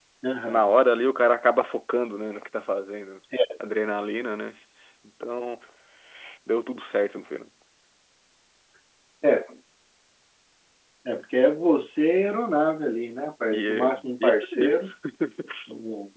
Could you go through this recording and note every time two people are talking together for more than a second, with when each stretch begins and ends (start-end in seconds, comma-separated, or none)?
13.5-14.8